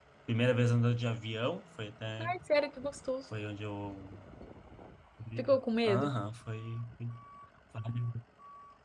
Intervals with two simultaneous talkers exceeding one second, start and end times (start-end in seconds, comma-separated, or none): none